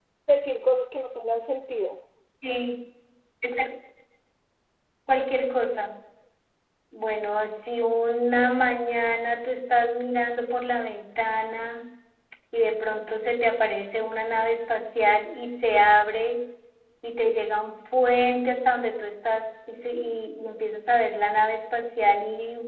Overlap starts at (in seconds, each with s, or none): none